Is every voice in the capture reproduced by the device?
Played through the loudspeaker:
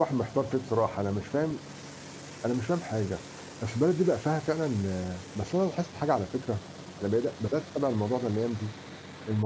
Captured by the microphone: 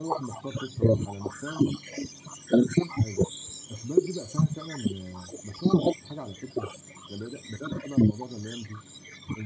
Yes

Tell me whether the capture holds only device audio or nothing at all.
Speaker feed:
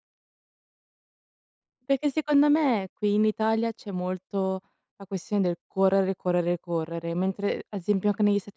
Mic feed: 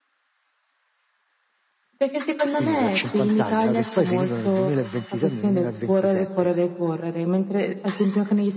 No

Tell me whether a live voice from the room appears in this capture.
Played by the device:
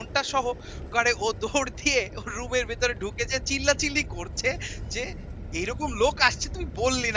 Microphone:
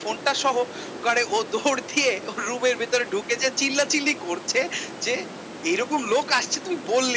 No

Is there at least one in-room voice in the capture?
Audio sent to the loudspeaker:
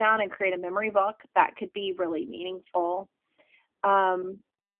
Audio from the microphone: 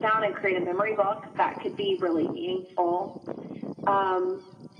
No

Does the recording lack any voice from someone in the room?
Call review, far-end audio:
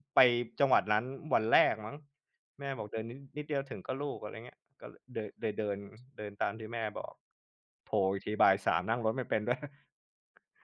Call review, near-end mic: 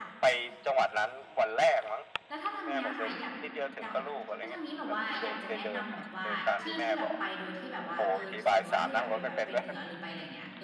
No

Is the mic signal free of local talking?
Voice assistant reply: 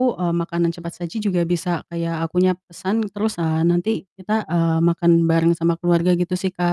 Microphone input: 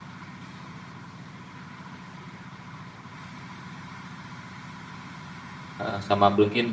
No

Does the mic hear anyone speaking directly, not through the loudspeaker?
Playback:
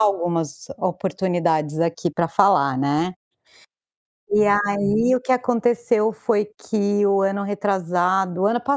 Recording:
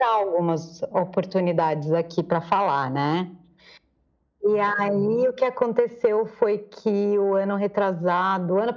No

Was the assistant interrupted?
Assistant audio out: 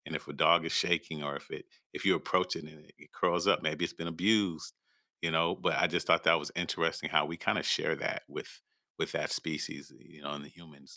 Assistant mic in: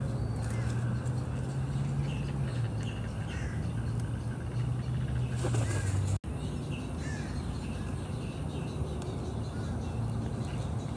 No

